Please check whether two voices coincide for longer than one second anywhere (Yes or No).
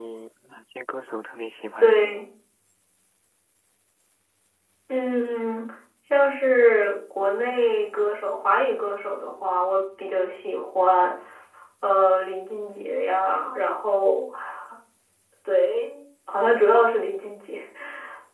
No